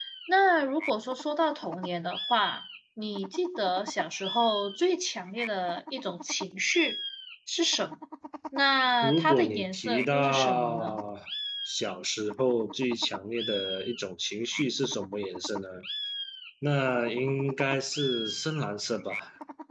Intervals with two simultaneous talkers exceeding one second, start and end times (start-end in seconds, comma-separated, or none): 9.0-11.0